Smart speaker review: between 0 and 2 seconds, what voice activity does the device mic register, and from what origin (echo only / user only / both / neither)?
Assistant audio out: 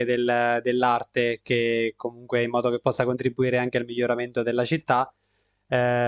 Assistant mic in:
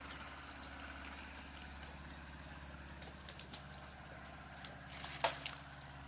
neither